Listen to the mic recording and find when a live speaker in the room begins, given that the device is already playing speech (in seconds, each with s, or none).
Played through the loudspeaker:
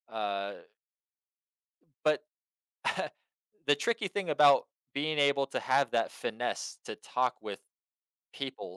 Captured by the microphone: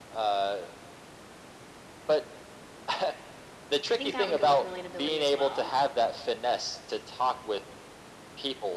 3.9 s